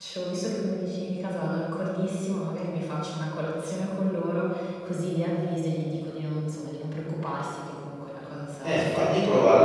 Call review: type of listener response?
taking over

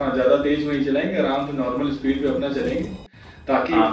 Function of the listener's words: taking over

